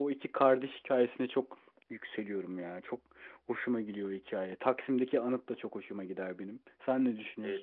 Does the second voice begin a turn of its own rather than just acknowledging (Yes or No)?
Yes